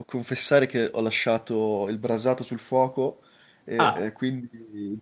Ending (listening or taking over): listening